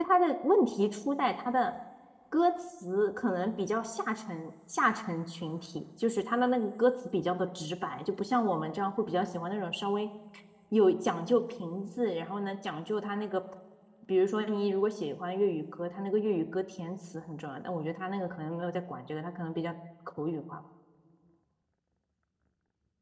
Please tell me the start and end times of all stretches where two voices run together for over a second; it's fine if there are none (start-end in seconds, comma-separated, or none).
none